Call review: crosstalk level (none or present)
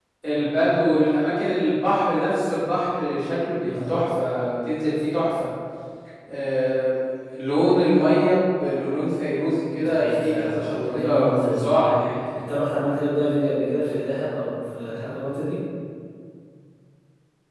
present